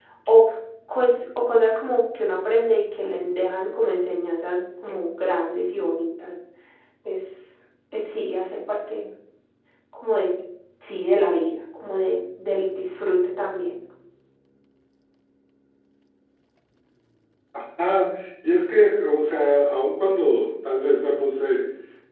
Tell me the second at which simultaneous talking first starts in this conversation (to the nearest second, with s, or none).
none